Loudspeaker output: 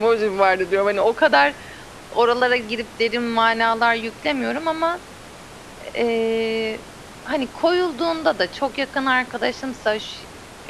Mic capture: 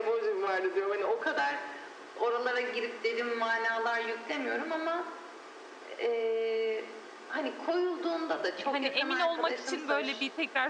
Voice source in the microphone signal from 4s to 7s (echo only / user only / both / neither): echo only